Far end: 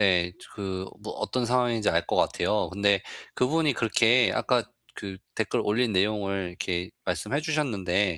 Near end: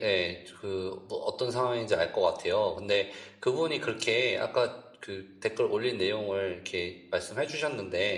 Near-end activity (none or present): none